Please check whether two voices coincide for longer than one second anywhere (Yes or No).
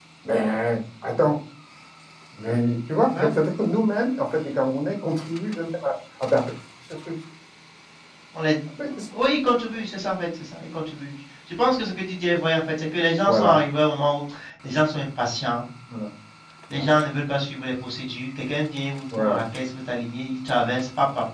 No